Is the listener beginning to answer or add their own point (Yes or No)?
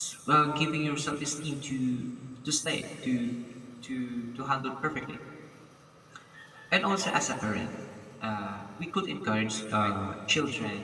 No